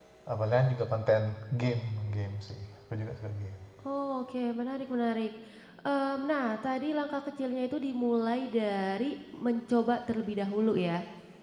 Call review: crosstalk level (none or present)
none